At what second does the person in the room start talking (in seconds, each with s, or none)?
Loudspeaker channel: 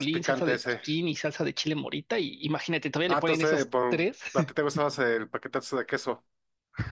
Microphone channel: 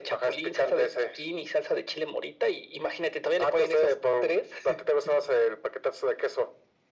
none